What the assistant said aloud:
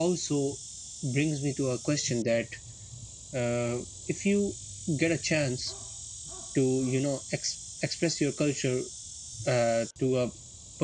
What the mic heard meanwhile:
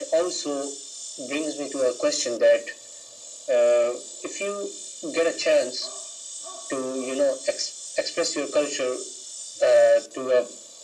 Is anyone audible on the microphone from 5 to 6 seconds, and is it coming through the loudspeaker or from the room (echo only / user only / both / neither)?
echo only